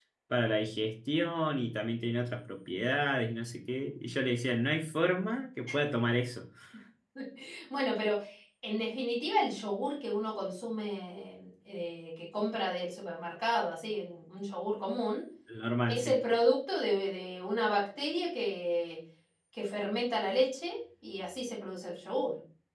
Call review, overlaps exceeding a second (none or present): none